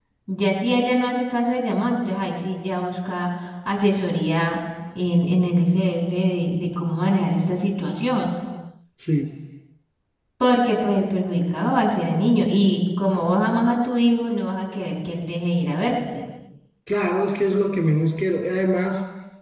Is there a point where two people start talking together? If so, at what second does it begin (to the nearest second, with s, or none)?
none